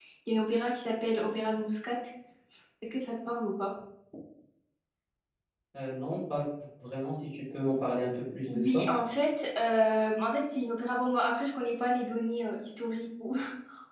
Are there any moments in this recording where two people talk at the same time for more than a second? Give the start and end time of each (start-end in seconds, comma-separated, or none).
none